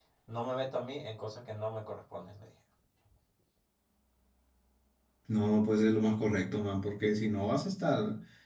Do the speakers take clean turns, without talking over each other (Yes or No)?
Yes